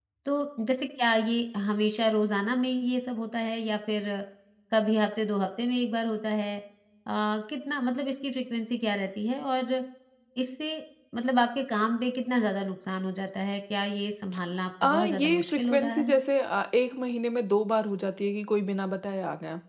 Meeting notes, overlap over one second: present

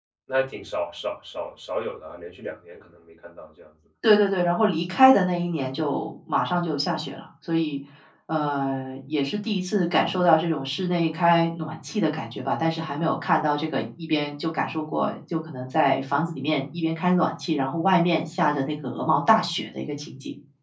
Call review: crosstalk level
none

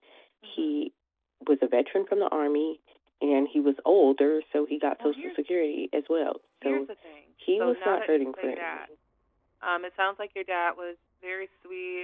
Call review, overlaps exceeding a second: present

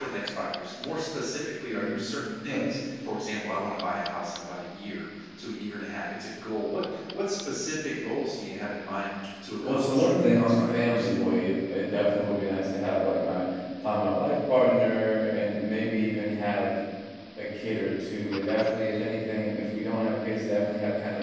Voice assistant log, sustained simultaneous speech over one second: present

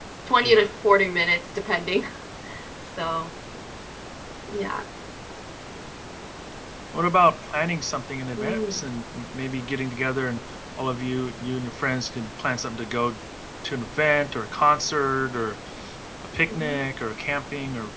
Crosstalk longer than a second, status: none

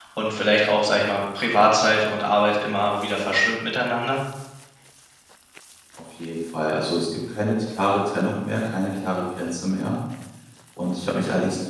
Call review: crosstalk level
none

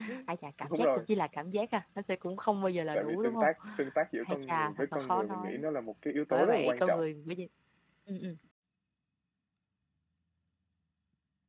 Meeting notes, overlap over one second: present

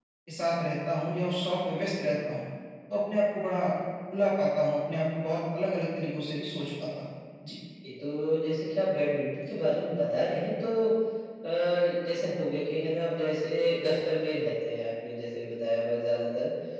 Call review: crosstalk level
none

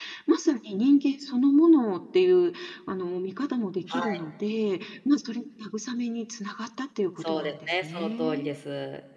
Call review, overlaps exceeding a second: present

